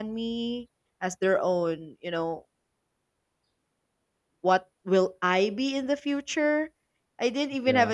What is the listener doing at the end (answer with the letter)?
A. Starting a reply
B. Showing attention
B